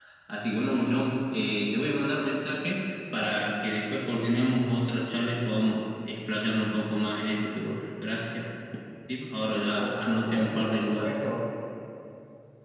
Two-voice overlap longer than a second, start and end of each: 9.8-11.1

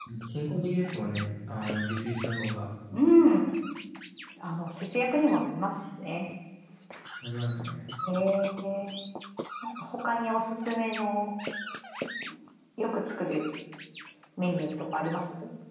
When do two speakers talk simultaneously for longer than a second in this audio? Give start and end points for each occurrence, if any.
none

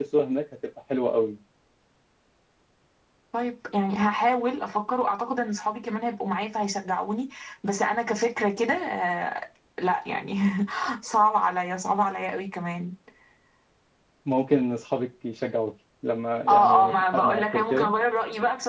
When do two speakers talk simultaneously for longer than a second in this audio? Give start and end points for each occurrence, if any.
16.5-17.9

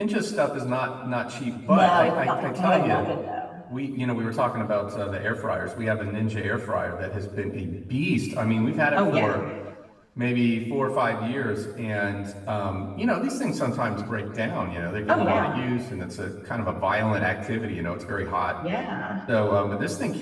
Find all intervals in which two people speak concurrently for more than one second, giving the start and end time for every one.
1.7-3.0

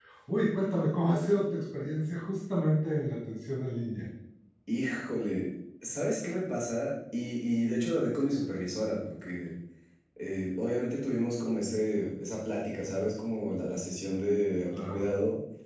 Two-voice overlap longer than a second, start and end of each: none

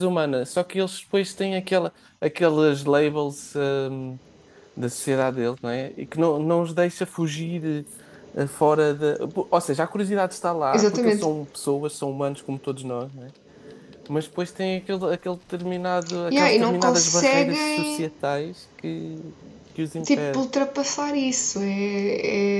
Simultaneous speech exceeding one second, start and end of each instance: 16.3-18.1

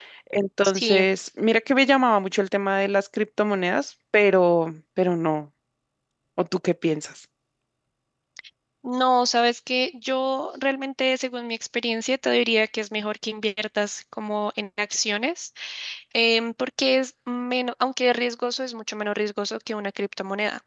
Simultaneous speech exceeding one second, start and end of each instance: none

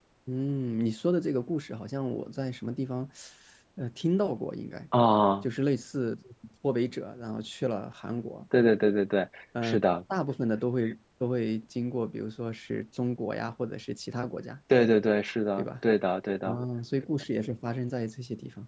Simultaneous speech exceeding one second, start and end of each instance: none

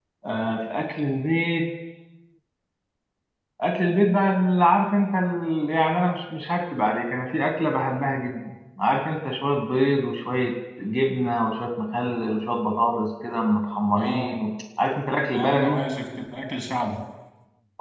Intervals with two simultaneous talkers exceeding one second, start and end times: none

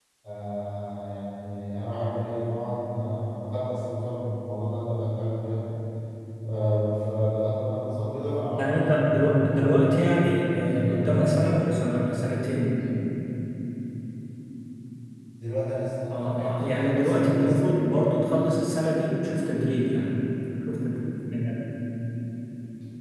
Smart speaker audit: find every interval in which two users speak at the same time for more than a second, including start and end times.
8.6-11.6, 16.1-17.6

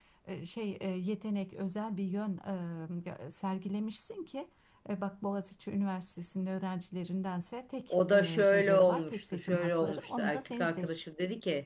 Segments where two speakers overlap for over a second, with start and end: 7.9-10.9

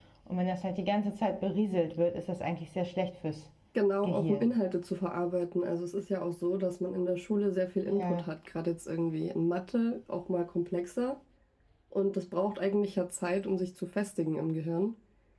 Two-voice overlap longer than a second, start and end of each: none

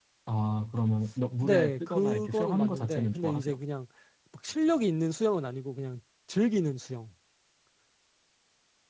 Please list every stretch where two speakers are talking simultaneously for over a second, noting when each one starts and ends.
1.4-3.6

